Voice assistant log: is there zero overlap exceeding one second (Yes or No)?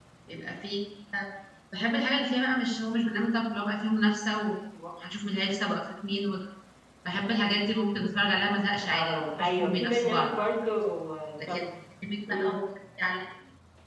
No